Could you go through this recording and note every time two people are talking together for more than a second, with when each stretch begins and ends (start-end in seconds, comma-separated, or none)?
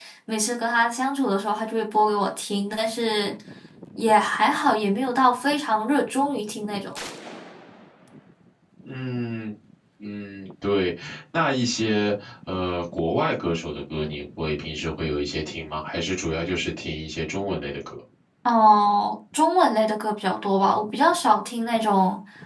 none